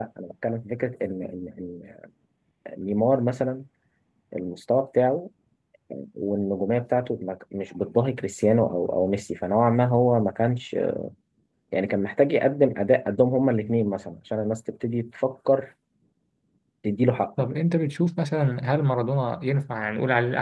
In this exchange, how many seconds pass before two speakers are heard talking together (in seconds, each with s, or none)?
none